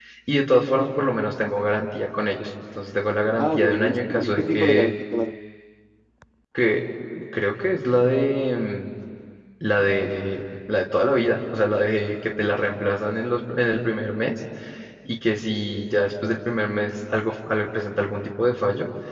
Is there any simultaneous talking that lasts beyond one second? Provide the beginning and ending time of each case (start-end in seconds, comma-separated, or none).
3.4-4.9